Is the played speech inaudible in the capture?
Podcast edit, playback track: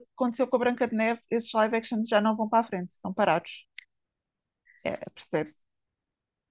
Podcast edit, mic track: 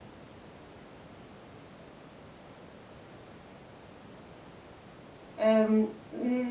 Yes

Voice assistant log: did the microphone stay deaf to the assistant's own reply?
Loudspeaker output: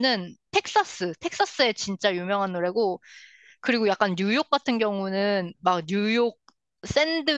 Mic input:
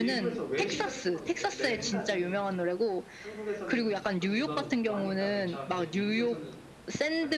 No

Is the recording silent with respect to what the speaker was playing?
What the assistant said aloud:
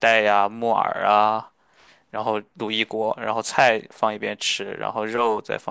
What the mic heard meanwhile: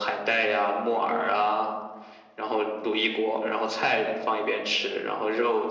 No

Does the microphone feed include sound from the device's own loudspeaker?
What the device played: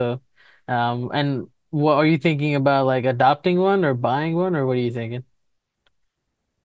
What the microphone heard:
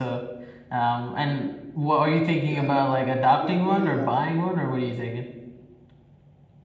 Yes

